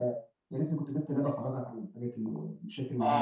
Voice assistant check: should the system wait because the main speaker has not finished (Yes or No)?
No